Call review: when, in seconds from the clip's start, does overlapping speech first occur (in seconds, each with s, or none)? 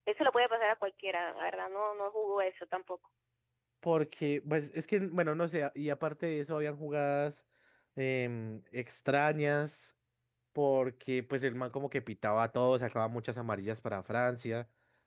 none